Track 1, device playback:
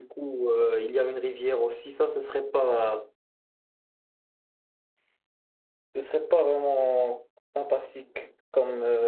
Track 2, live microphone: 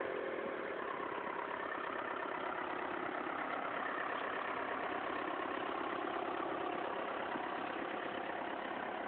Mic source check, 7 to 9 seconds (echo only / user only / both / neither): neither